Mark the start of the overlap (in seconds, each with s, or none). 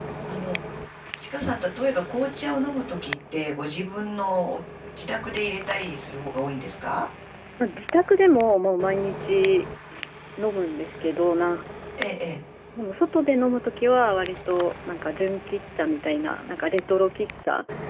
none